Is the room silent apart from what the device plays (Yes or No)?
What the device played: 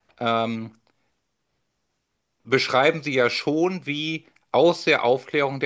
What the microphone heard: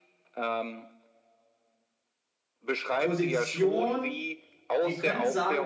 No